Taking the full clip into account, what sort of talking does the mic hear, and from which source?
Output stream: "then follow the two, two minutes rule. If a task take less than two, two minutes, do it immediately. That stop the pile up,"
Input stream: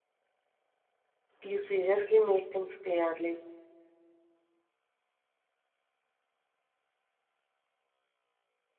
user only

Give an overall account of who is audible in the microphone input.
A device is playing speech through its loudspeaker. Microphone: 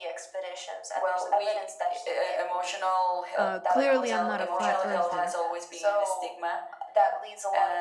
both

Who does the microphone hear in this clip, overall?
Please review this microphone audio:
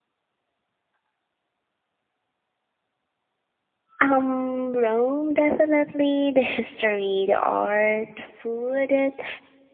user only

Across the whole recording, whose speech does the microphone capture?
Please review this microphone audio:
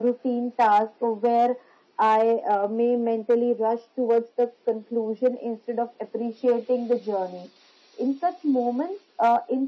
echo only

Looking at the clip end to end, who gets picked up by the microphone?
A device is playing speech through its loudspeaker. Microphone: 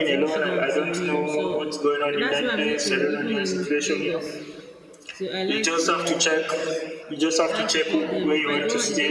both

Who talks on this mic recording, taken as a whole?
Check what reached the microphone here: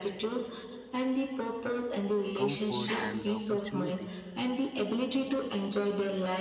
both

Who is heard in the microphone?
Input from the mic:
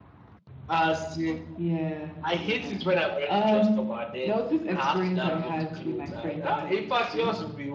echo only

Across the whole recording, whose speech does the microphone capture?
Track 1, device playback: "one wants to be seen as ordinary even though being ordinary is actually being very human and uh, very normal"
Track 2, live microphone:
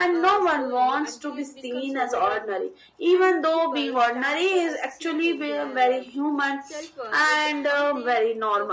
both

